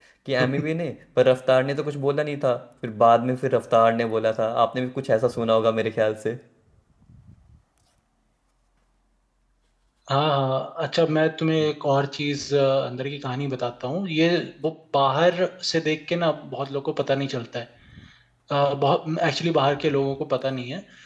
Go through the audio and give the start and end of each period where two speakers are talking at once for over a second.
none

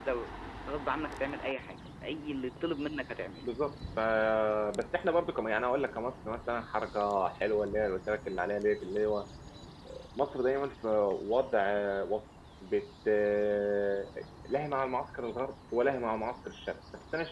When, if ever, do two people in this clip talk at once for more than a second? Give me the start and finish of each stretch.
none

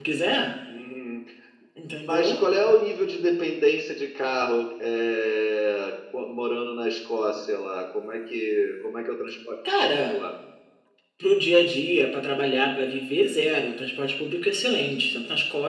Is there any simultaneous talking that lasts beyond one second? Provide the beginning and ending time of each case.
none

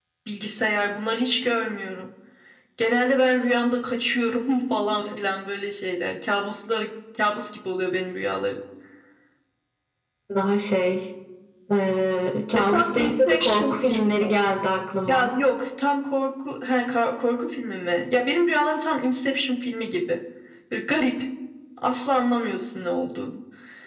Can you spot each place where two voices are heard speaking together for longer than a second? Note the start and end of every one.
12.5-14.3

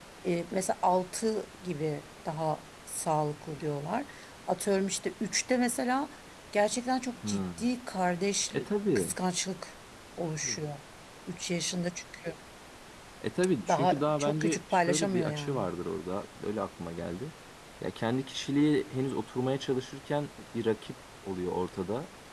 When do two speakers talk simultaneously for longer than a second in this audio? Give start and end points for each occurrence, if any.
13.7-15.7

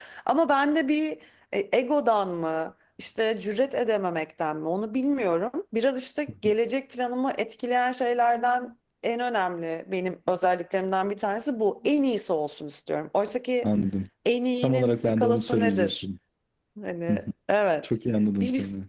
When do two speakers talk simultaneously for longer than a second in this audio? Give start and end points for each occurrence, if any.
14.6-16.0

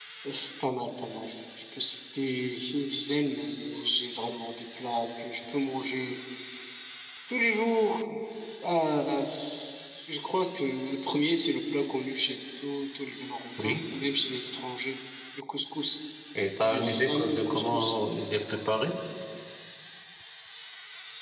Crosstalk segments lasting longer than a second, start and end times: 16.6-17.9

